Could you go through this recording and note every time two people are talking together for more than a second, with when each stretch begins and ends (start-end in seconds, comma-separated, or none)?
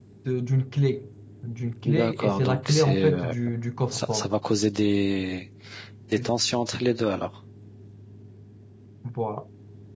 1.8-3.3